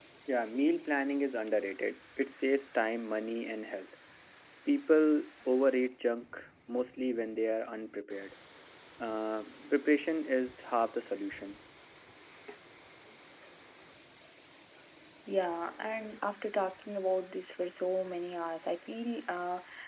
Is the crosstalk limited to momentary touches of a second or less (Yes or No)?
Yes